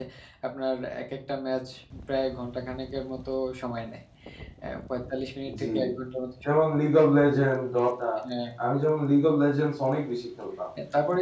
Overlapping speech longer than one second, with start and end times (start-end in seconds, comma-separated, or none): none